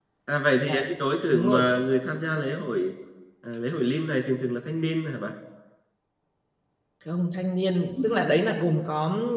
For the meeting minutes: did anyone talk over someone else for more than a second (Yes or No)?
No